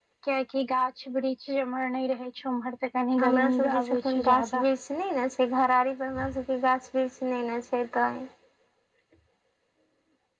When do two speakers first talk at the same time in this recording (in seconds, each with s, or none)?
3.2 s